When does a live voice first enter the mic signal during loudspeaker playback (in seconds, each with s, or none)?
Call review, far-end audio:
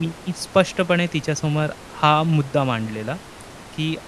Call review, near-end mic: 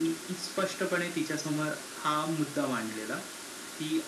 none